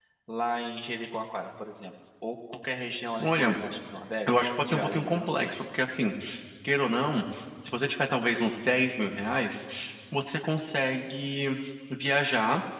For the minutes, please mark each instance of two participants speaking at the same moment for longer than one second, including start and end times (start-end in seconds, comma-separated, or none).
4.3-5.5